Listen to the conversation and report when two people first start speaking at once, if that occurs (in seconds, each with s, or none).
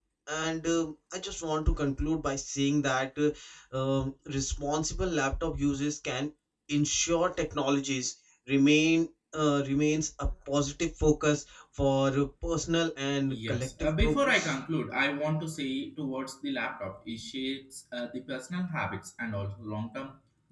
13.3 s